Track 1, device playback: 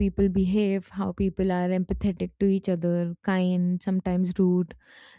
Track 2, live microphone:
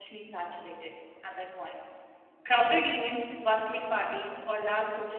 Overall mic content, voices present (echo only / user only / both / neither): user only